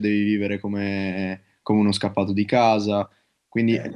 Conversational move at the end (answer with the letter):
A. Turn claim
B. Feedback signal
B